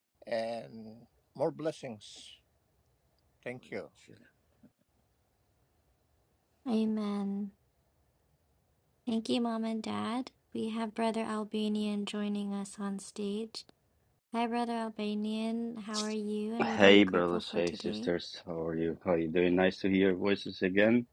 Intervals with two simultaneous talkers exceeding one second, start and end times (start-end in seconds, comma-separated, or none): 16.6-18.1